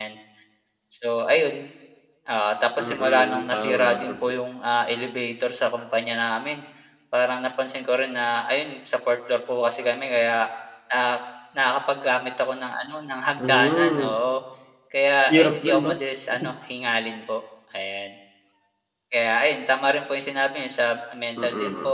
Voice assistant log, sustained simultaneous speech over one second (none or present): present